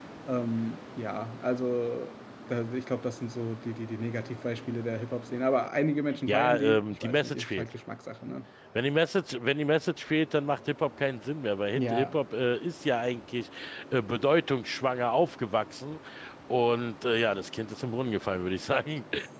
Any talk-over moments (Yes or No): Yes